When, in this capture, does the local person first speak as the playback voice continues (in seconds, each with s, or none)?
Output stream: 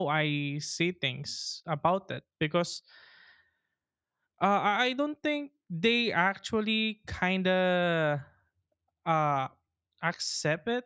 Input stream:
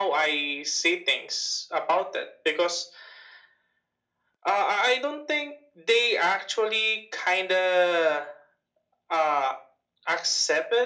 none